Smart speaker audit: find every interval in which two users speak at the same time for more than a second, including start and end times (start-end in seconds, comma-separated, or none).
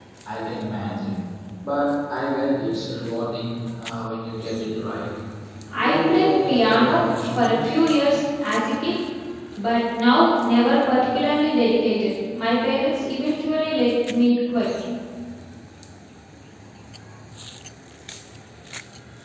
5.8-7.8